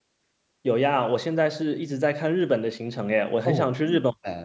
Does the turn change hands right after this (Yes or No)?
Yes